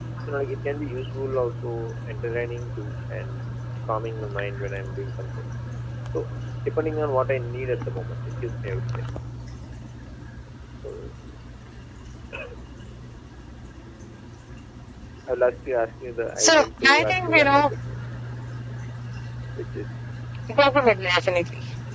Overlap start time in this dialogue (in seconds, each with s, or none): 16.4 s